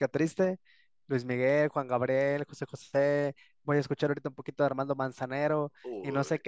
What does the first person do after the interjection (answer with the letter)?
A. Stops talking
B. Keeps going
B